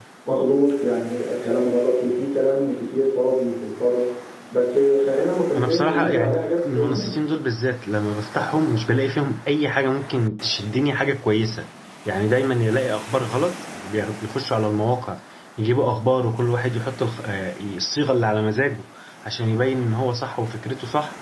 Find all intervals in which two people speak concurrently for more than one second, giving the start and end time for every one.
5.5-7.2

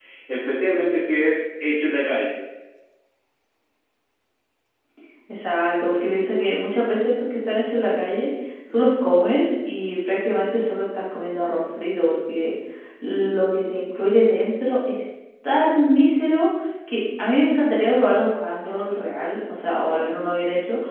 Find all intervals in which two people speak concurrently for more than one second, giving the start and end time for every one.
none

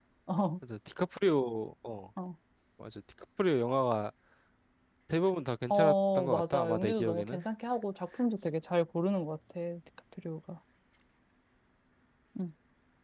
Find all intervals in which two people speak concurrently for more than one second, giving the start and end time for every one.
5.7-7.4

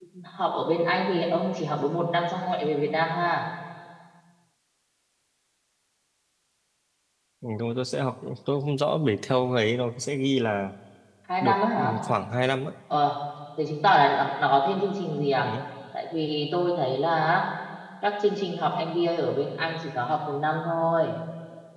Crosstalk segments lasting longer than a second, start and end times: none

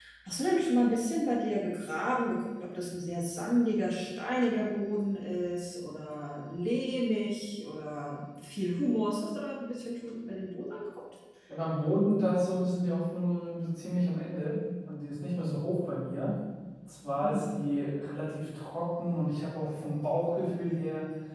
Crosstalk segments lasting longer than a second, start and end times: none

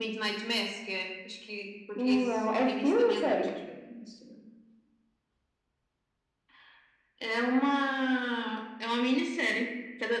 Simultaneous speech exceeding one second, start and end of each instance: 2.0-3.5

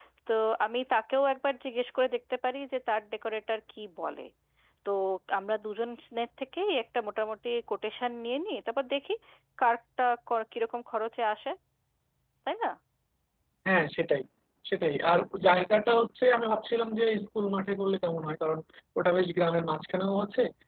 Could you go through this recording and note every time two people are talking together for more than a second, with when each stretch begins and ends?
none

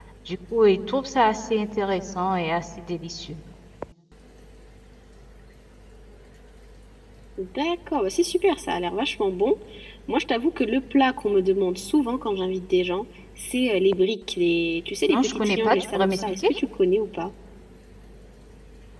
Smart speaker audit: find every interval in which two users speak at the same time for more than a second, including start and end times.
15.1-16.5

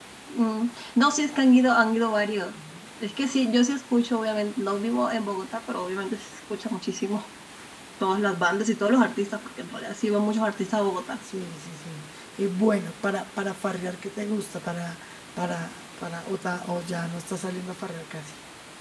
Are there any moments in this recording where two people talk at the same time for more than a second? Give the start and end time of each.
none

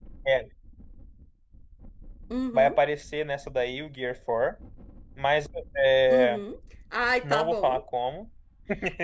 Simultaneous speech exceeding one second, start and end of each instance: none

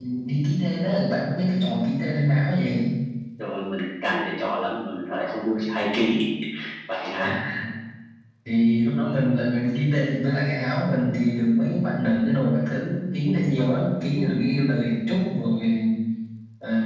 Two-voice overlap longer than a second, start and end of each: none

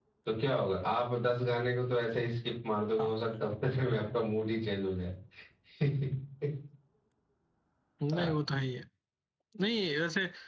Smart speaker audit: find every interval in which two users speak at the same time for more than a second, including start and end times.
none

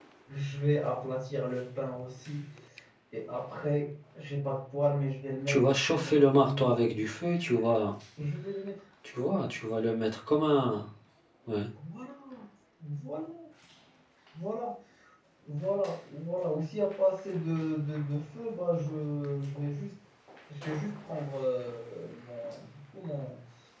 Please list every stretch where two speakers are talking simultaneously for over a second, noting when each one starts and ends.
5.5-6.9

